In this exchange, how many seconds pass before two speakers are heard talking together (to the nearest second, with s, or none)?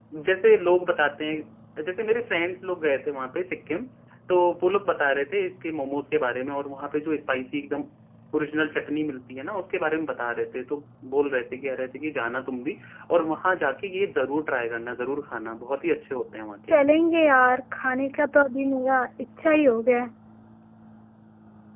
none